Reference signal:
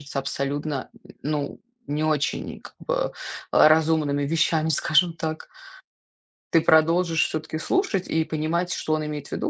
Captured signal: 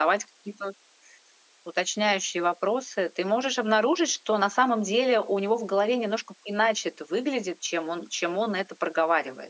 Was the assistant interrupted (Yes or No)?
Yes